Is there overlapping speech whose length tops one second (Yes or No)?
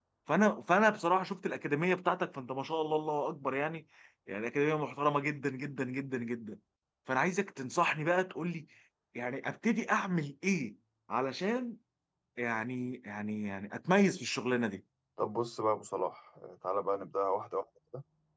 No